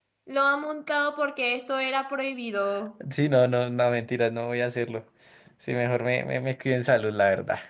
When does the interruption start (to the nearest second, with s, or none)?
none